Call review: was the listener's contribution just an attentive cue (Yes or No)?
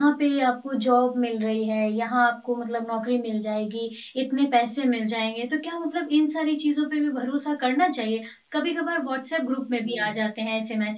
Yes